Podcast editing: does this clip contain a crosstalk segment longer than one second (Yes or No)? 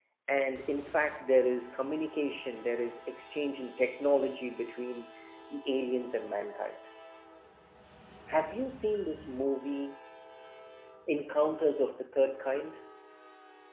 No